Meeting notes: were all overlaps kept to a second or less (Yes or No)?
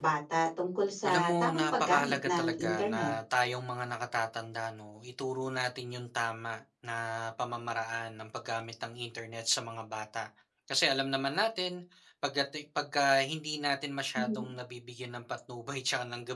No